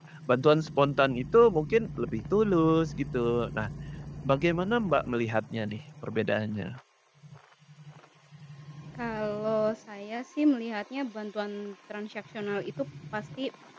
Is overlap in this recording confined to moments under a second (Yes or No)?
Yes